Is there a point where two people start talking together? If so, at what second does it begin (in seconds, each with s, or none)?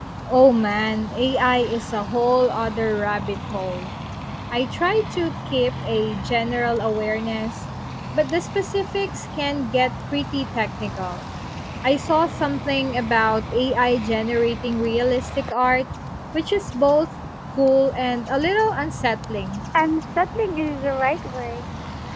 none